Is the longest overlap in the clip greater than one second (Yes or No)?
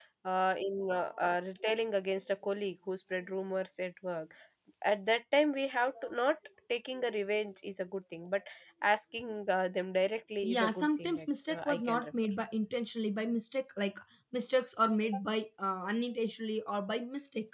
Yes